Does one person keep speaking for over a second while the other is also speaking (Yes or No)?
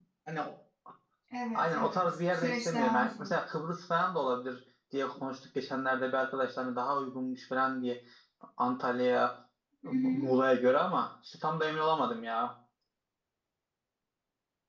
Yes